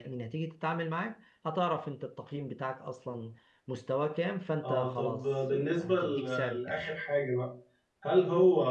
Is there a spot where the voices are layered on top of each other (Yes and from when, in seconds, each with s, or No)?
Yes, from 4.6 s